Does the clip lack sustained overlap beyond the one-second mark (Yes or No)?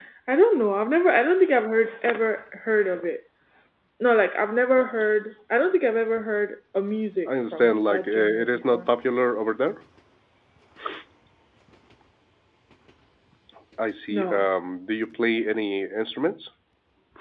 No